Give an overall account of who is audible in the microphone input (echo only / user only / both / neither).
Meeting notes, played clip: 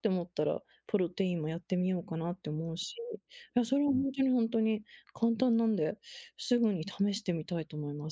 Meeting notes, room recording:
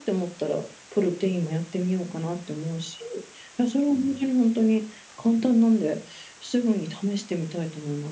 echo only